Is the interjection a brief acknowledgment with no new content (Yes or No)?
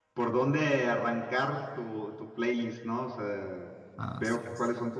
Yes